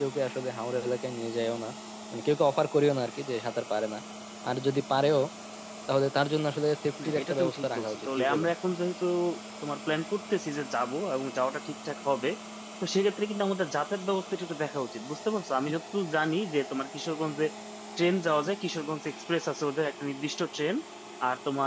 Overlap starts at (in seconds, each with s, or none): 7.0 s